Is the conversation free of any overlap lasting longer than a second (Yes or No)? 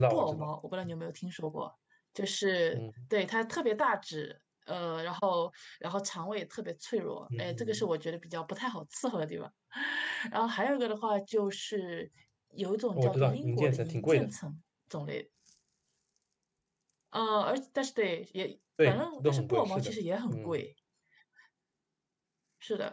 No